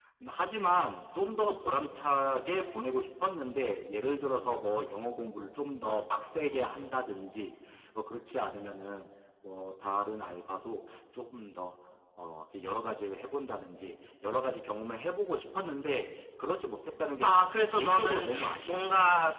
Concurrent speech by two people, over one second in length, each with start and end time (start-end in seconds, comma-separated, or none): 17.2-18.9